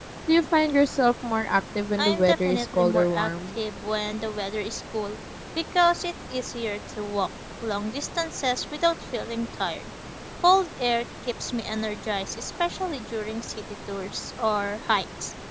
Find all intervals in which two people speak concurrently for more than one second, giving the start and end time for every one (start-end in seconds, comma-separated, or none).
2.0-3.5